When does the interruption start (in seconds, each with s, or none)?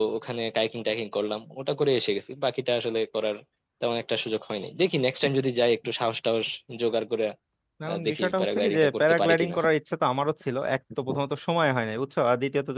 7.9 s